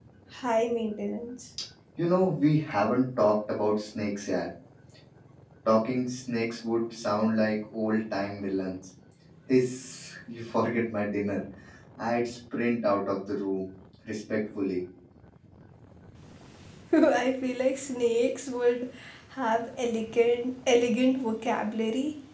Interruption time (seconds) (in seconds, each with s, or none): none